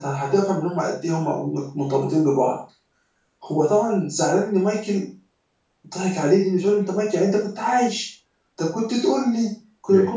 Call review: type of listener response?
listening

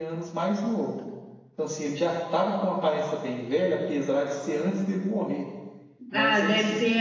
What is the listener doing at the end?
taking over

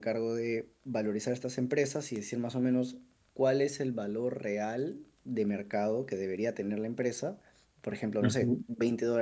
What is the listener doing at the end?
listening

